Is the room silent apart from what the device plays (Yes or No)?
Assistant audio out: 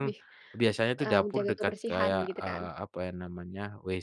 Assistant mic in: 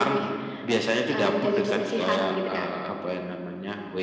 Yes